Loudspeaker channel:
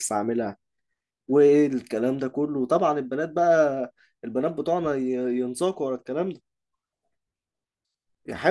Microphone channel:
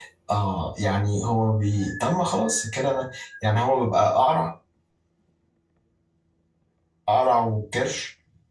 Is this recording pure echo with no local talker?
No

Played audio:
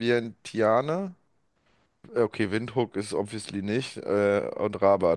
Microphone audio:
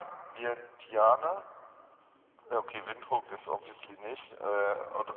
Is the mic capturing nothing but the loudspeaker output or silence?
Yes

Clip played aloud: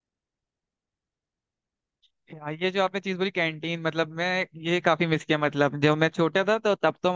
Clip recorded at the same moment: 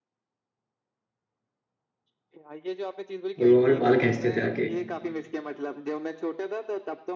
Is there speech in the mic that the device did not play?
Yes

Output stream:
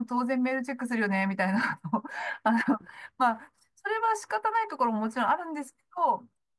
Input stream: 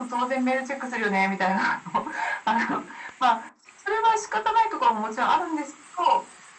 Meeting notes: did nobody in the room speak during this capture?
Yes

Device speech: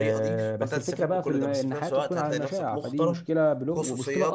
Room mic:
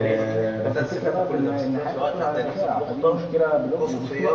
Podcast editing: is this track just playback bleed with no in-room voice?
Yes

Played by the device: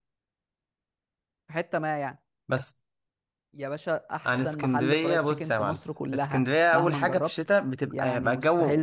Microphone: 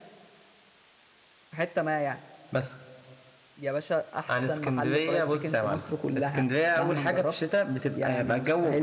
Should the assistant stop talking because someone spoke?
No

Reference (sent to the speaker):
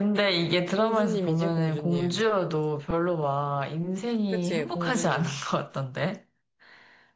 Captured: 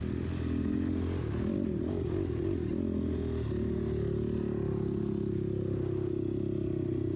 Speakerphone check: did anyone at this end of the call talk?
No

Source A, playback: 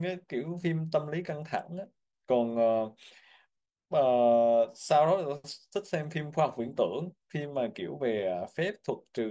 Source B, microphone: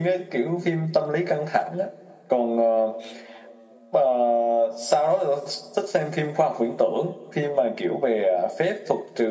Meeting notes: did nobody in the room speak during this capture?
Yes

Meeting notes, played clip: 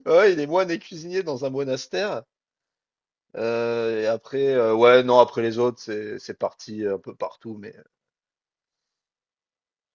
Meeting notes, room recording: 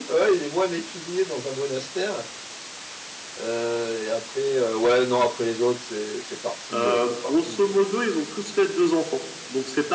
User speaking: Yes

